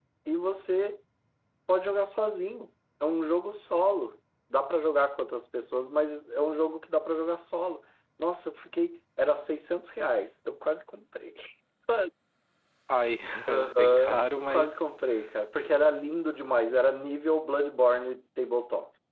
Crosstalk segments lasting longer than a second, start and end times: 13.5-14.7

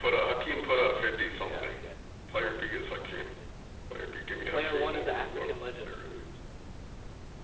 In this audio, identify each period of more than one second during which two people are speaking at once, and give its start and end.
4.5-6.0

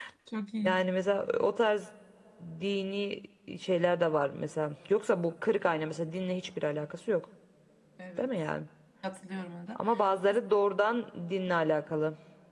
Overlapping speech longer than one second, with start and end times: none

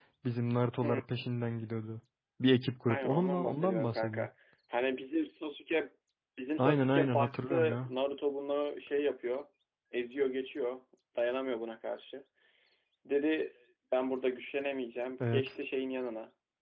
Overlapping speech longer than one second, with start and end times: 2.9-4.3, 6.6-7.9

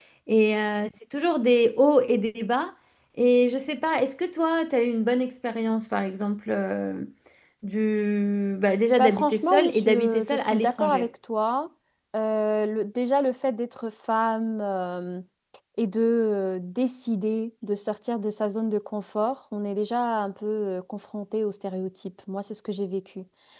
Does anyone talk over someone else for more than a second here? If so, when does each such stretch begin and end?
9.0-11.1

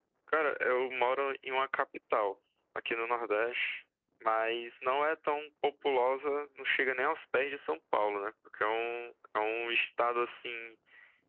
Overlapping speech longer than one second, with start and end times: none

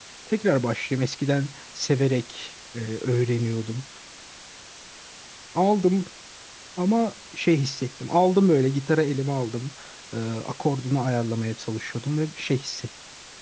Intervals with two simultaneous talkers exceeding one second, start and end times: none

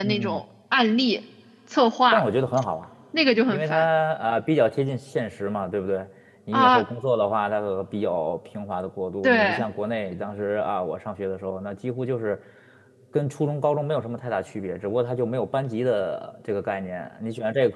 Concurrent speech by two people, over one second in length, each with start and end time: none

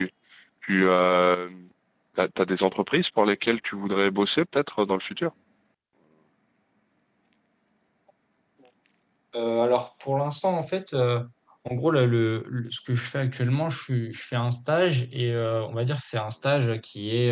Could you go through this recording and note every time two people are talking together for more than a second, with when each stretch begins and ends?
none

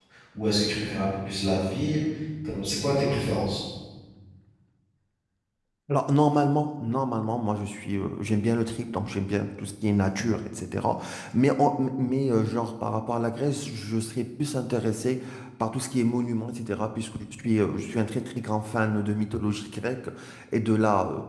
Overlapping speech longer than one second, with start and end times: none

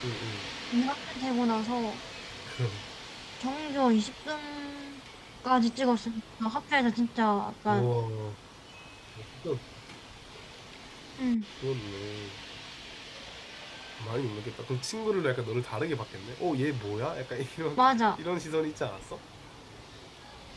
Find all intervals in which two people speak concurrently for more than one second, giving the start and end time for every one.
none

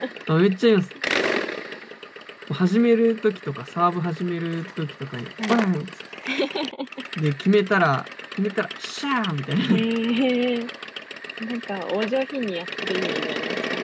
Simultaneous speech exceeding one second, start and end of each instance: none

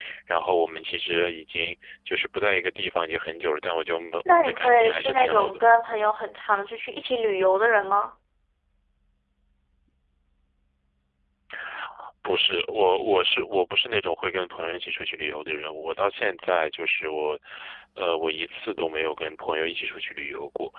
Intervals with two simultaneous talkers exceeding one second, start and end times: 4.2-5.6

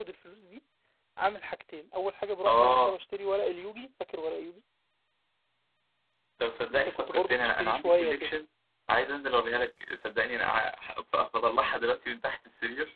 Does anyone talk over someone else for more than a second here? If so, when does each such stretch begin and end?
6.7-8.3

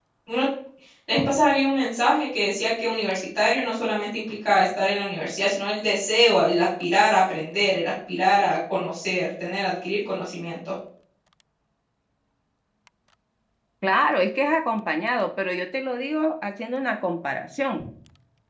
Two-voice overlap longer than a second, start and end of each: none

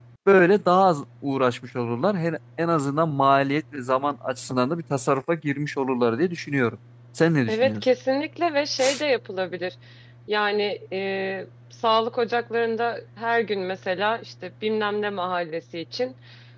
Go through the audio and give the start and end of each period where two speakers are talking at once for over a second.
none

